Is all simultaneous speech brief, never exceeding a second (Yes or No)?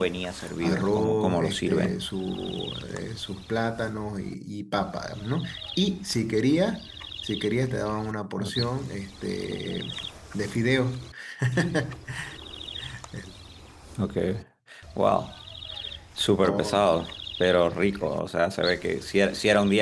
No